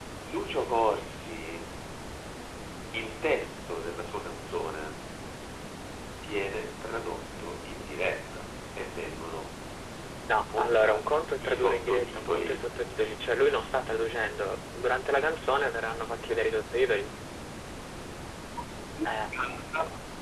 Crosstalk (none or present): present